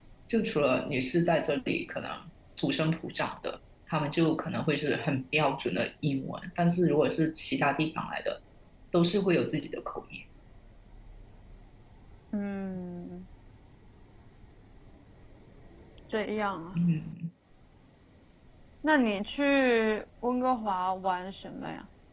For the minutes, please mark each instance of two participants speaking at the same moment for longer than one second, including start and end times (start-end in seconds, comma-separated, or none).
none